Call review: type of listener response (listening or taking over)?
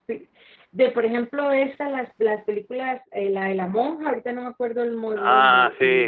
taking over